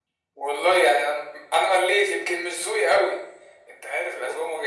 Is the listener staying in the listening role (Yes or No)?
Yes